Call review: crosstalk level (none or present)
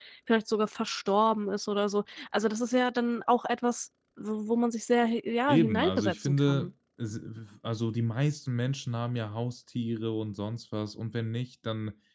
present